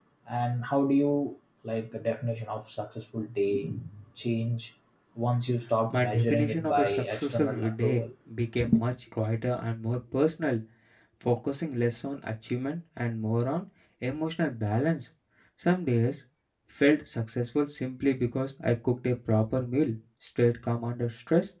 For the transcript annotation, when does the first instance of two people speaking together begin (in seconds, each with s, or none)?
5.8 s